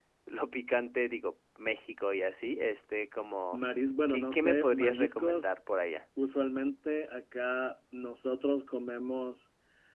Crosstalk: present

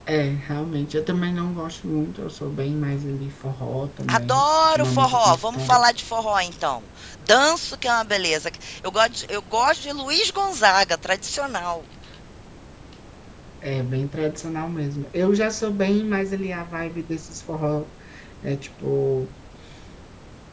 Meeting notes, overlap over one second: present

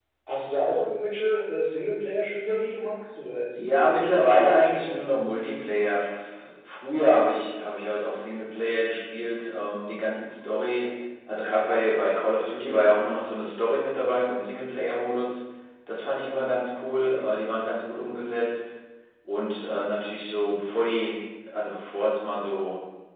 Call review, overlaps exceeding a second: present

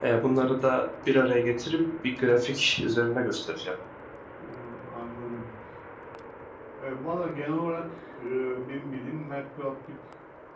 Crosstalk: none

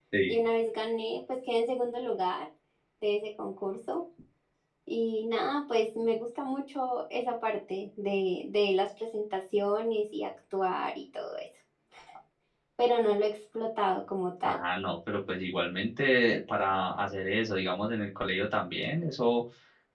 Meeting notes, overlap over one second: none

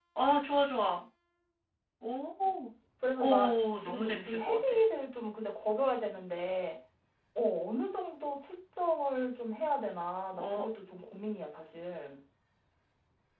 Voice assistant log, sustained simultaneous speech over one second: present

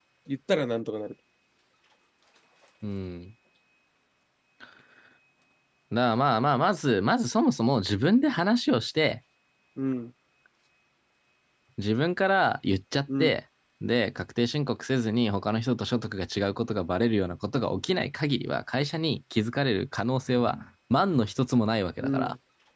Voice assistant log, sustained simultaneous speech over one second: none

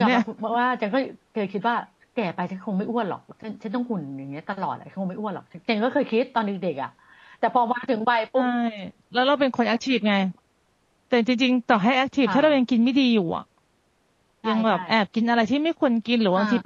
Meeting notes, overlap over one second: none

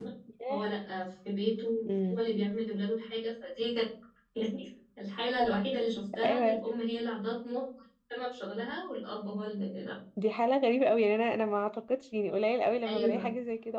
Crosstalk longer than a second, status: none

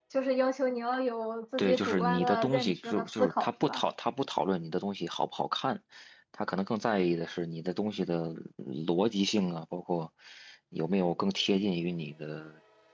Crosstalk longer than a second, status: present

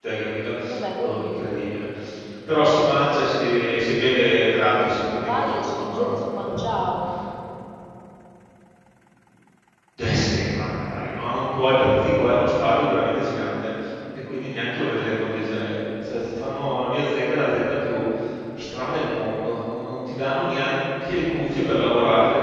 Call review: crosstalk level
present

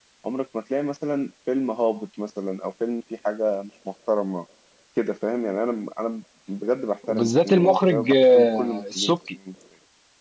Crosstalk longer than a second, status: present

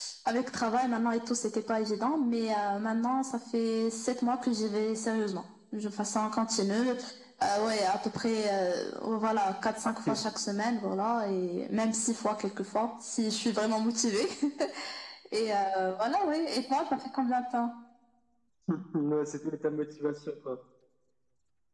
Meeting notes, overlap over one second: none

